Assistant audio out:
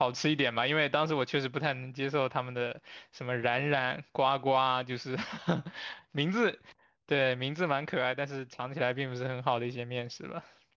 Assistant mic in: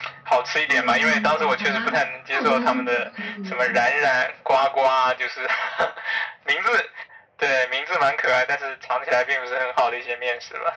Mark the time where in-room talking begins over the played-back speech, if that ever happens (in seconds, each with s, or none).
0.6 s